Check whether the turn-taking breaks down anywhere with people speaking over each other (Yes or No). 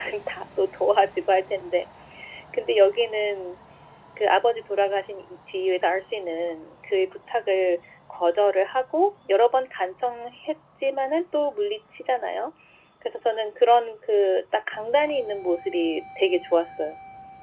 No